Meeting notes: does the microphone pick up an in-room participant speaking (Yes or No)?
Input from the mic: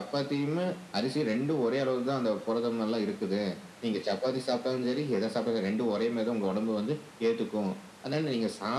No